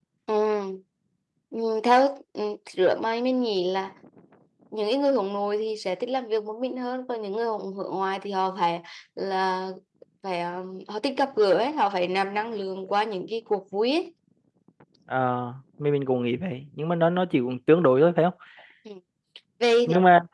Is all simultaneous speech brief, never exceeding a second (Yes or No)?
Yes